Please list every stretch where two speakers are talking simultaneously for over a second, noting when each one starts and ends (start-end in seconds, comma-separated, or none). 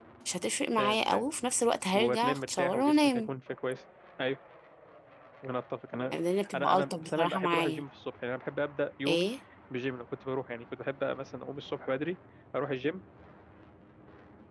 1.9-3.3, 6.5-7.8